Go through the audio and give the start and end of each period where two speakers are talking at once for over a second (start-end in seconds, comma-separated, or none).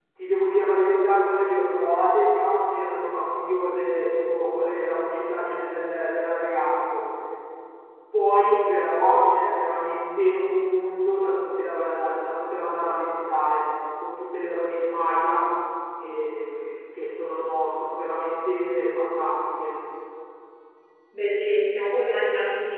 none